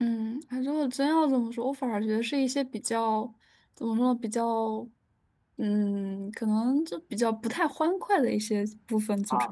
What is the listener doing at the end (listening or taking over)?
taking over